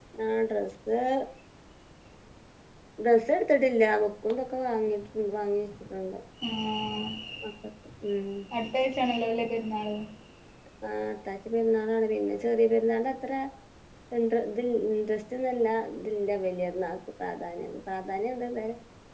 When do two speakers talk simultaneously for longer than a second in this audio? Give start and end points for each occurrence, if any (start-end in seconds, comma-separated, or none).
none